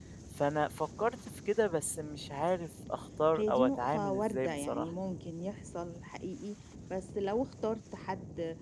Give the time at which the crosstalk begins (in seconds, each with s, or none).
3.4 s